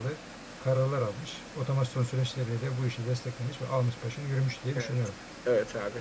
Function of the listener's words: taking over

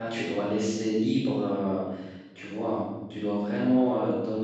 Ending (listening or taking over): listening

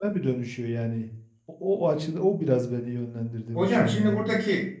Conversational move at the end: taking over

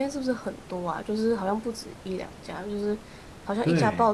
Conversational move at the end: listening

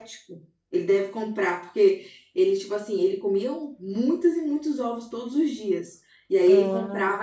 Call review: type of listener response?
listening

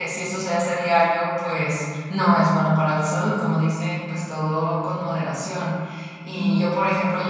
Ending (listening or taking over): listening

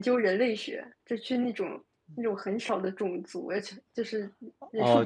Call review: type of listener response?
listening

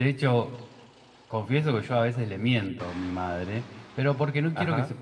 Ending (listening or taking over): listening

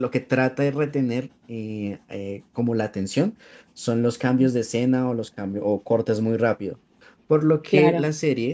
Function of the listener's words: listening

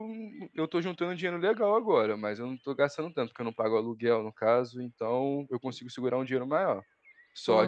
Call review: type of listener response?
listening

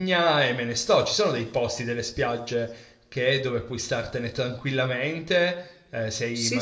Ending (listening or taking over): listening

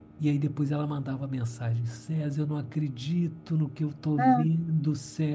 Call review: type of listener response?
listening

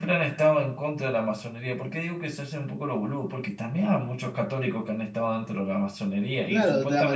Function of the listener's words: taking over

